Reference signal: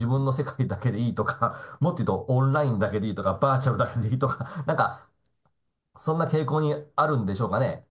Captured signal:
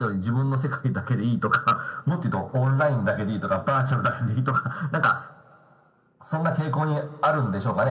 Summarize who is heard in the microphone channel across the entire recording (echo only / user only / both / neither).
echo only